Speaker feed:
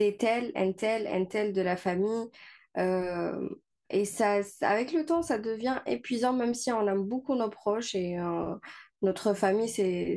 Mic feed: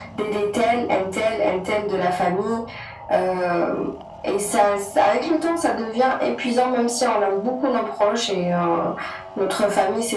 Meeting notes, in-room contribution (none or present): none